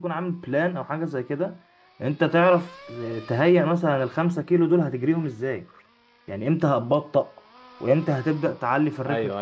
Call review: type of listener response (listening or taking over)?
taking over